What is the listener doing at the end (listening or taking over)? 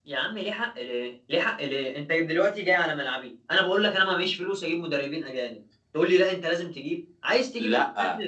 taking over